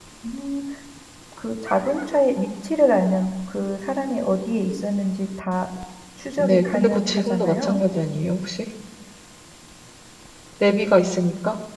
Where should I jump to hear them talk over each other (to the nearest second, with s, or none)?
6 s